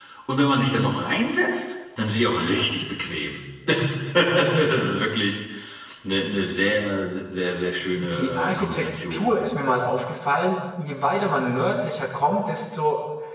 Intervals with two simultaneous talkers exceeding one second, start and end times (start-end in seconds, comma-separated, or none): 8.0-9.3